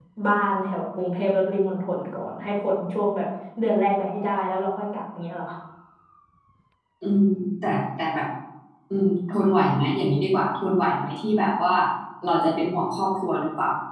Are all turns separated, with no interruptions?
Yes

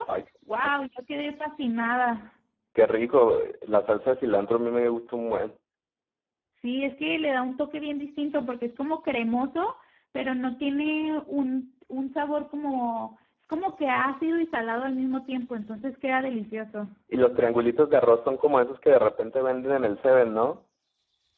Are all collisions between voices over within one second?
Yes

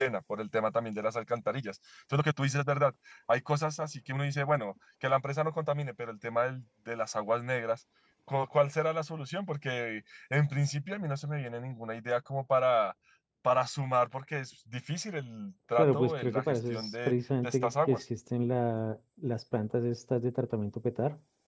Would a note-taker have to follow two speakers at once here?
Yes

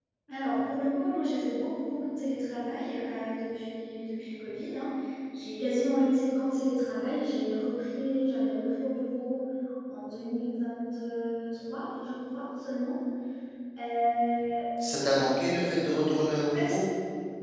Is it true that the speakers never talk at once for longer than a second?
Yes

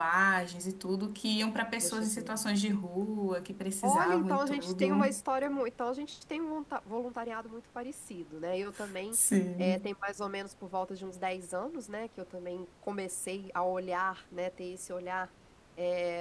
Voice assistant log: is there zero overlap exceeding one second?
No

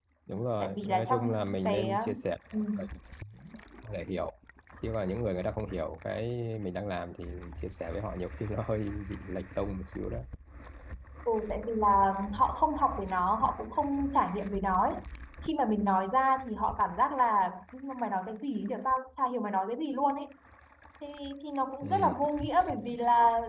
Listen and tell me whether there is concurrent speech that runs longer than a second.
Yes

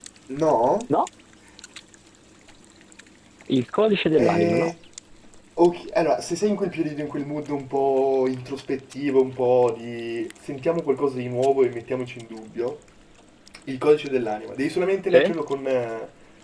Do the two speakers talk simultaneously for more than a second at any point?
No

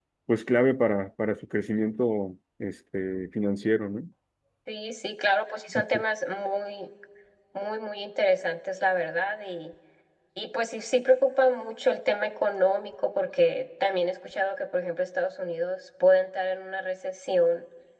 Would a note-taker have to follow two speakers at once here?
No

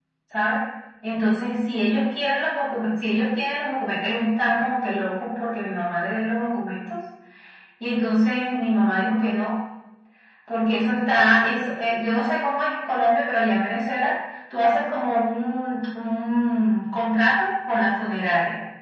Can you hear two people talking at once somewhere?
No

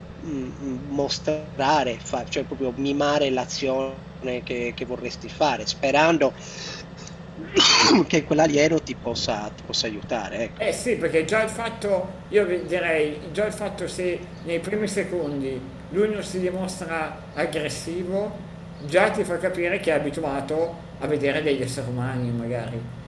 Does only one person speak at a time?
Yes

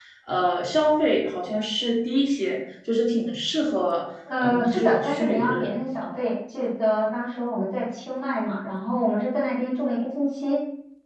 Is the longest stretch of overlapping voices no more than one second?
No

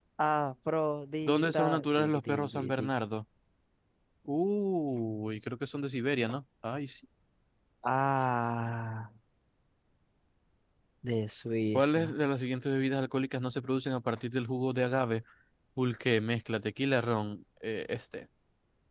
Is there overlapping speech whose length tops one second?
Yes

